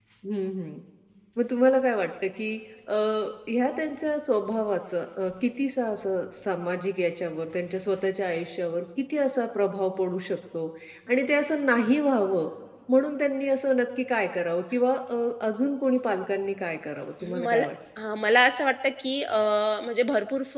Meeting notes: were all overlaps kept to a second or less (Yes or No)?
Yes